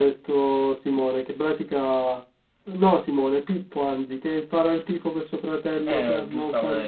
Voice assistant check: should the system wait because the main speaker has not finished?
No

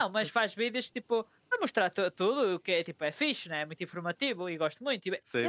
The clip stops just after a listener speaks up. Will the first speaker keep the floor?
No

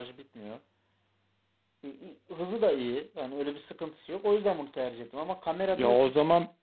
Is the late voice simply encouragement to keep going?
No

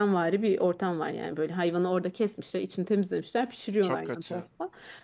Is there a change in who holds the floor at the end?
No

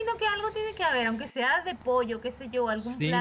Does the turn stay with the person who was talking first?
No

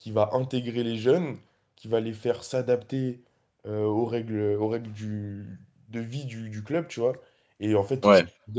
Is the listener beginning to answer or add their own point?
No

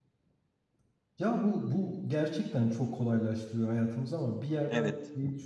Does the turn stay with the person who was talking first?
Yes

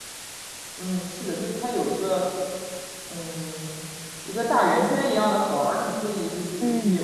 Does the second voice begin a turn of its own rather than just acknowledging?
Yes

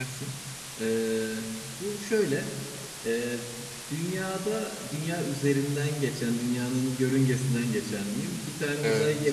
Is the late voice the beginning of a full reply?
No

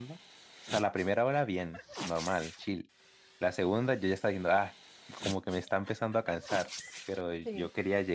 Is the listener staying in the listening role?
Yes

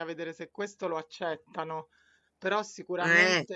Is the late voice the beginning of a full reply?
No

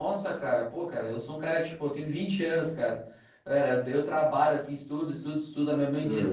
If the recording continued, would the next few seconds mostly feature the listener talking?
No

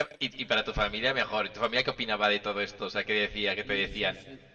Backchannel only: No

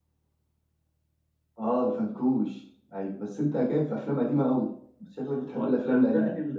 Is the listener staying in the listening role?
No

